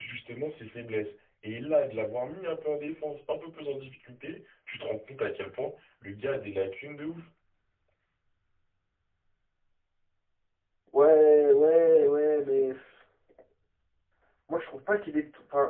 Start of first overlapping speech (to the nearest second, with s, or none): none